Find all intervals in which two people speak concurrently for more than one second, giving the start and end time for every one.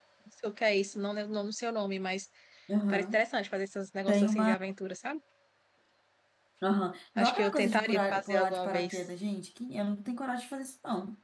7.2-8.9

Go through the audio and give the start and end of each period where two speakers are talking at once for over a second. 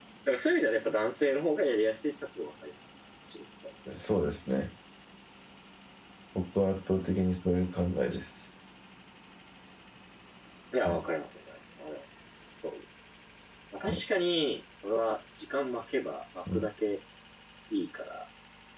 none

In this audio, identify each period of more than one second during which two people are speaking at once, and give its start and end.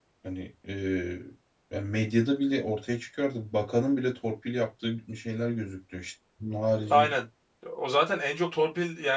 none

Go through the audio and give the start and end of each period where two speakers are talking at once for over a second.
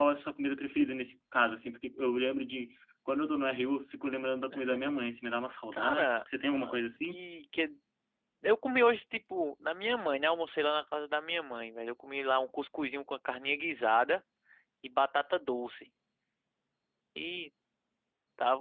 5.7-7.2

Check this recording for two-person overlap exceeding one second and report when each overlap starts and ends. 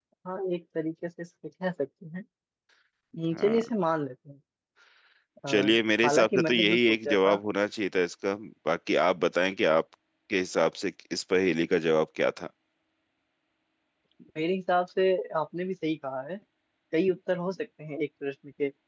6.0-7.4

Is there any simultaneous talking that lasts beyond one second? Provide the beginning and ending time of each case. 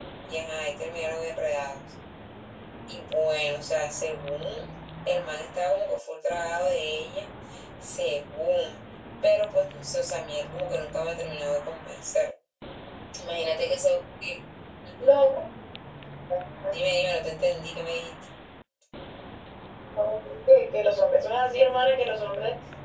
none

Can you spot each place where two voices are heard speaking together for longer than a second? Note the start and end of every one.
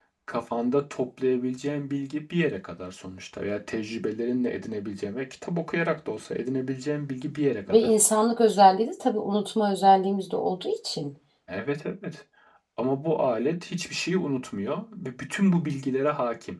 none

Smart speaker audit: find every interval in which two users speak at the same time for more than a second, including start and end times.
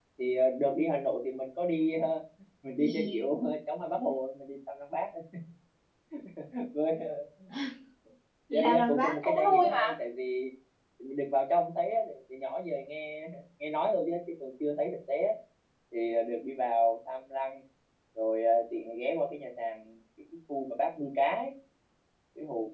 8.5-9.9

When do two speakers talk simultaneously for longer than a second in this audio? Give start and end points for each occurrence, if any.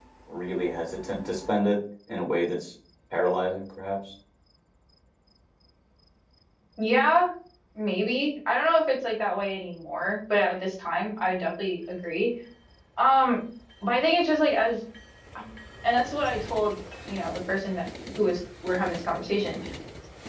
none

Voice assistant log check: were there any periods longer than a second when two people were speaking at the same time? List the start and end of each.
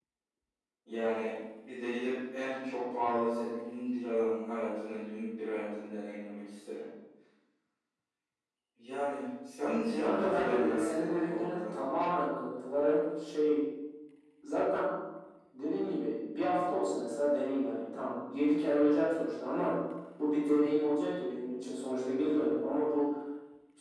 10.0-11.6

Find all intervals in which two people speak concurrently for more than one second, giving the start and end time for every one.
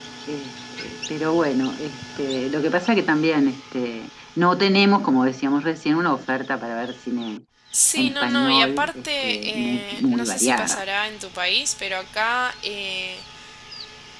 8.0-10.8

